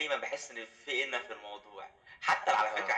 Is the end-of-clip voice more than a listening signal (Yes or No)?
No